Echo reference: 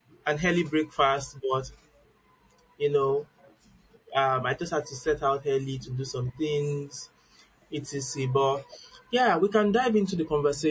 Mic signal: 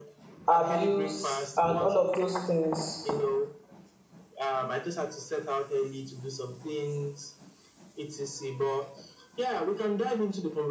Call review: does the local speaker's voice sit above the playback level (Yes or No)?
Yes